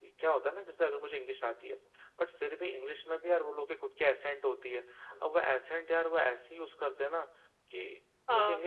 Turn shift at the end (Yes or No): No